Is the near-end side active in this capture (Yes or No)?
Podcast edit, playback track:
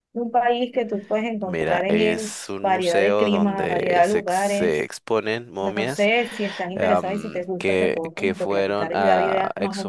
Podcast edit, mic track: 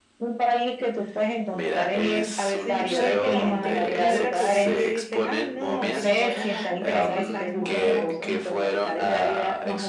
Yes